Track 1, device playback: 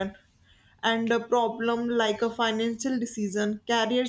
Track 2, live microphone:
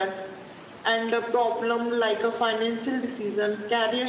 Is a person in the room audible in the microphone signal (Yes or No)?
No